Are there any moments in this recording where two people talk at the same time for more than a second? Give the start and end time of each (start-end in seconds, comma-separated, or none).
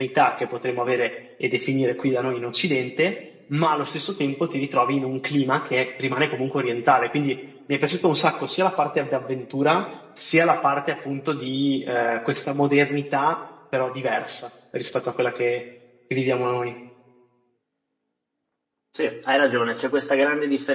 none